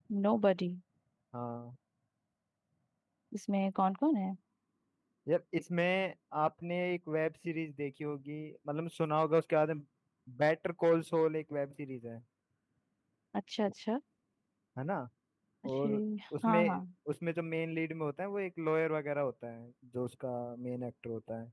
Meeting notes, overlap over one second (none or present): none